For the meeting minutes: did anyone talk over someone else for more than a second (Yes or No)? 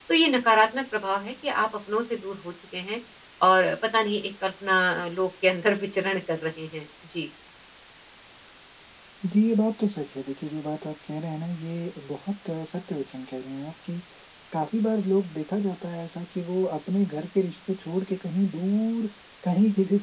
No